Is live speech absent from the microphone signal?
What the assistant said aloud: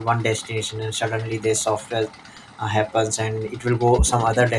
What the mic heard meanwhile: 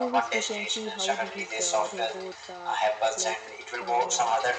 No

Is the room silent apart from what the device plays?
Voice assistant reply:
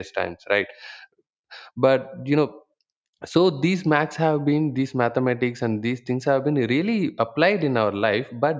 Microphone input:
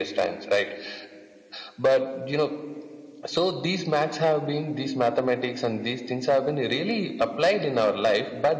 Yes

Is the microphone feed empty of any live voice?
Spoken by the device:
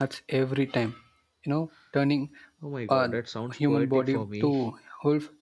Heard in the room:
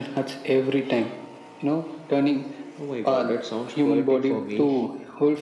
Yes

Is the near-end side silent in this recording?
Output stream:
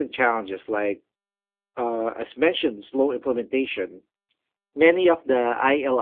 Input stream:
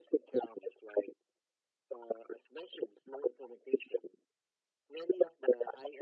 Yes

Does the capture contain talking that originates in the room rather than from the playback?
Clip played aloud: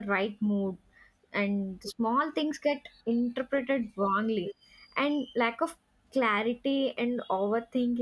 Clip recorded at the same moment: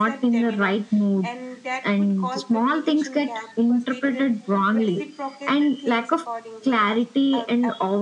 Yes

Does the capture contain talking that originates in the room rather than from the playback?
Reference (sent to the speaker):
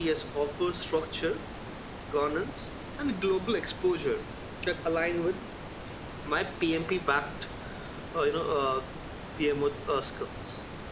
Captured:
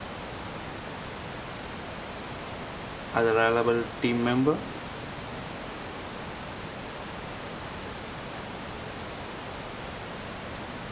Yes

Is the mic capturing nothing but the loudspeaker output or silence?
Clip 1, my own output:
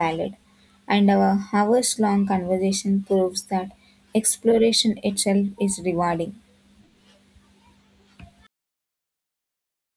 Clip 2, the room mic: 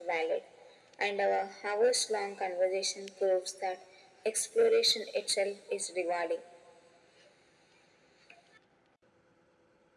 Yes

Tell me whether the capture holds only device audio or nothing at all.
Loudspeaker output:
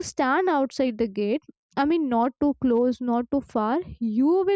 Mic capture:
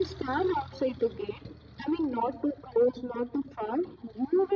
Yes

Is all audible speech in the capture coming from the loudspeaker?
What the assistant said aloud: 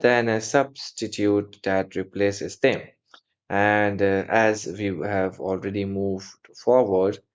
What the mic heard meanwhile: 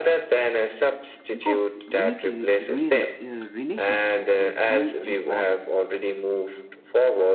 No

